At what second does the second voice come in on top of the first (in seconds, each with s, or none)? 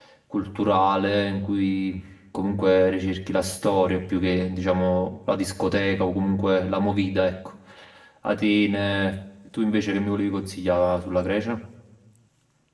none